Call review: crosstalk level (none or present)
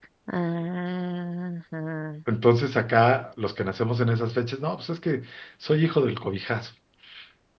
none